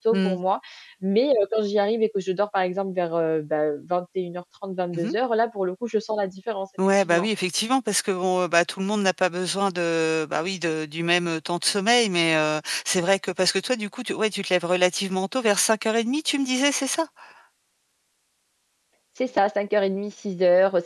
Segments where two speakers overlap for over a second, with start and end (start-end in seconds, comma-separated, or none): none